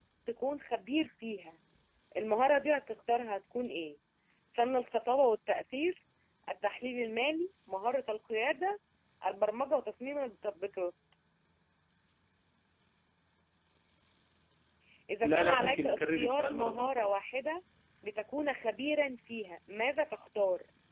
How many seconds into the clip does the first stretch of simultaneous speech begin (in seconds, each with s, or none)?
15.2 s